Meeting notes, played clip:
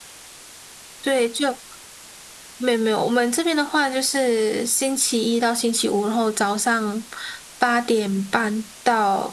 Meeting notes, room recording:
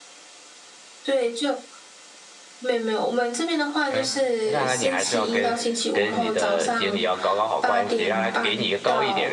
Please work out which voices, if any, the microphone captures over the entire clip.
both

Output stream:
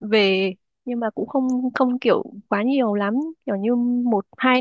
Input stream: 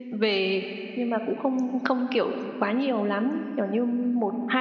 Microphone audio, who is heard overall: echo only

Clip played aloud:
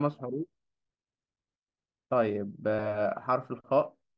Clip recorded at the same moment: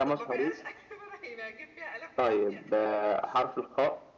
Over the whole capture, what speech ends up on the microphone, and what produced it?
both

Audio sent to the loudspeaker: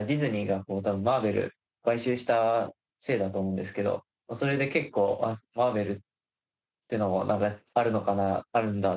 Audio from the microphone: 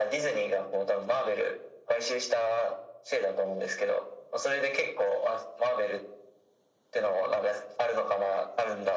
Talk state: echo only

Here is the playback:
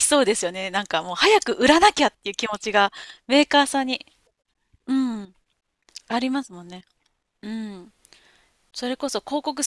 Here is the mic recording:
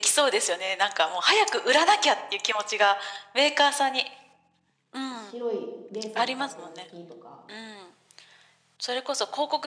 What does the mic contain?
both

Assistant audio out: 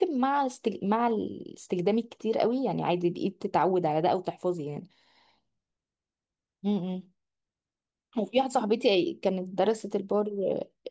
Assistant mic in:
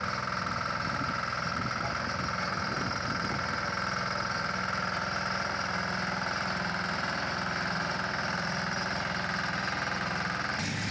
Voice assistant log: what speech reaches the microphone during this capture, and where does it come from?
neither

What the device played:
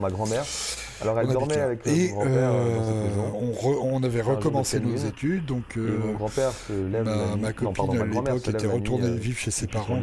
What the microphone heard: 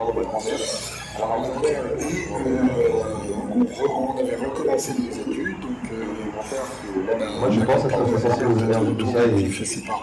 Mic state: both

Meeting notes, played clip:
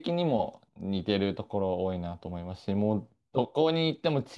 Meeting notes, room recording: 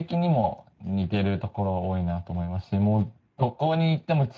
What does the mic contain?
echo only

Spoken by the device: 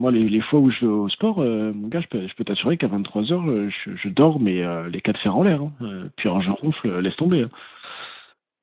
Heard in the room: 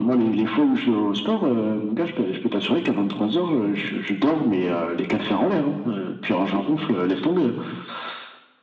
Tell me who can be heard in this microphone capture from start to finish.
echo only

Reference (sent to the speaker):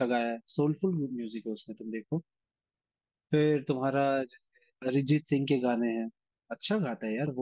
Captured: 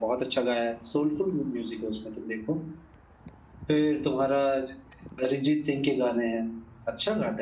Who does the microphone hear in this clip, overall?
echo only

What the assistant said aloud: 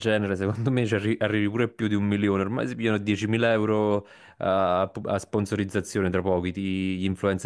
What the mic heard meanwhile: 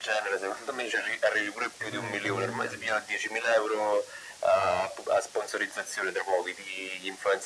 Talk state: both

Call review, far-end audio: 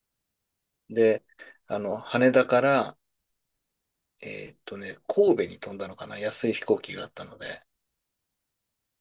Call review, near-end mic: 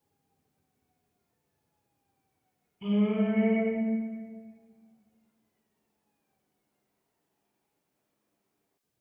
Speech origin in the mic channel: user only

